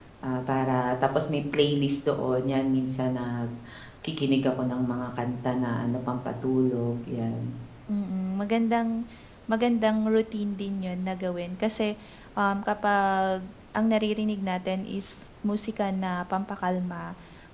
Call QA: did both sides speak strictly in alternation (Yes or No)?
Yes